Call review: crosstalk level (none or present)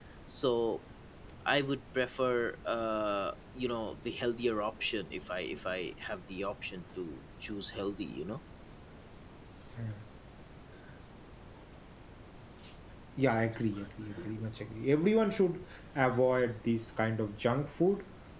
none